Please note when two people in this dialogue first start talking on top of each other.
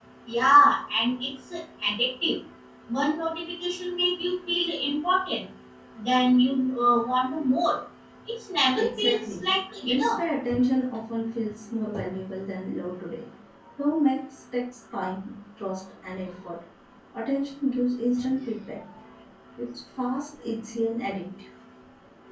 8.8 s

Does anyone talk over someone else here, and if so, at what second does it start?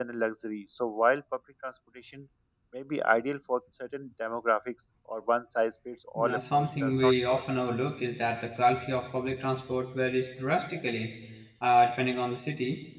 6.2 s

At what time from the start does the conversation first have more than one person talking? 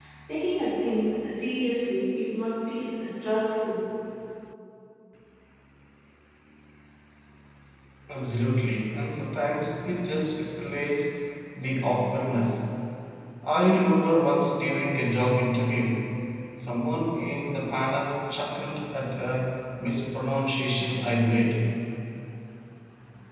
none

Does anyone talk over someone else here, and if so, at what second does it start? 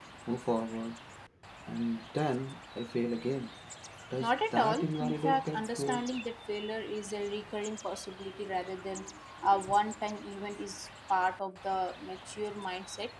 4.2 s

